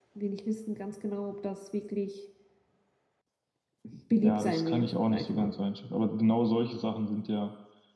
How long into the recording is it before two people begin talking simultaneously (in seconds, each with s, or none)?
4.2 s